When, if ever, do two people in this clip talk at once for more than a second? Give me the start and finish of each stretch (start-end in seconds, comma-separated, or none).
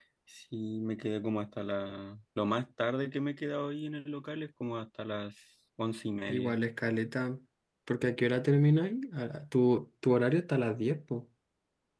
none